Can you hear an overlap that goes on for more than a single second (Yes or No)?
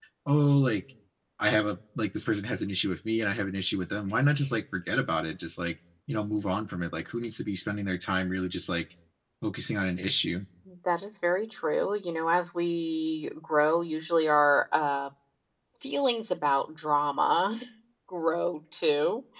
No